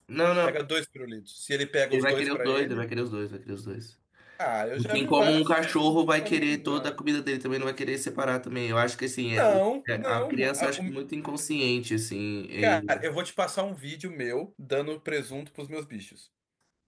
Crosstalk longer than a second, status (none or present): present